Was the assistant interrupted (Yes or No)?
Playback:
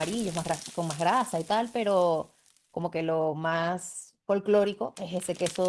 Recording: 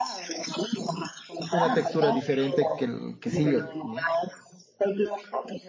Yes